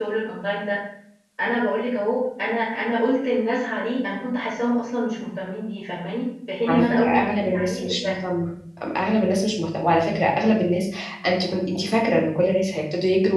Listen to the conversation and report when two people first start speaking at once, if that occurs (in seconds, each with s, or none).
6.7 s